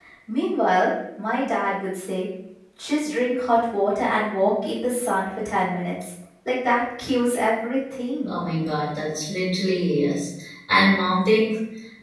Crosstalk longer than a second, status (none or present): none